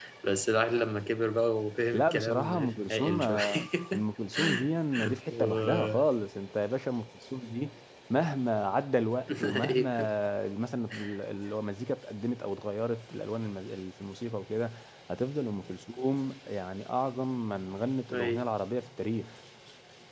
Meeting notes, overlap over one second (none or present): present